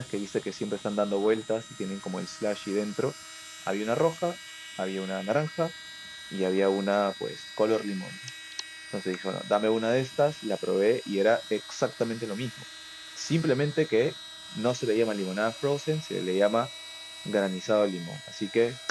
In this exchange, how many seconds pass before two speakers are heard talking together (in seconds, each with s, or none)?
none